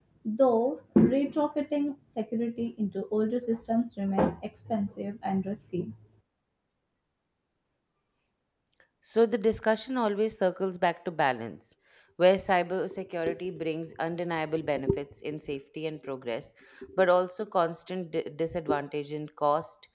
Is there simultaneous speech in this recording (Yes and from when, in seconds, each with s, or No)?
No